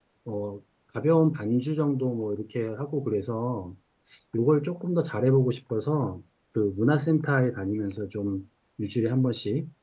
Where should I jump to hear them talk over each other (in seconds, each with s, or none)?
none